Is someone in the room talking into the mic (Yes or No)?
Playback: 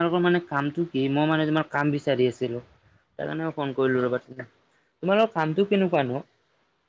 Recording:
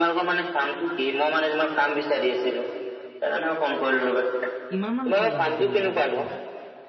Yes